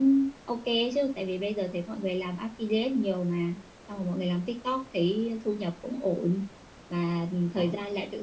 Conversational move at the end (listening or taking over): listening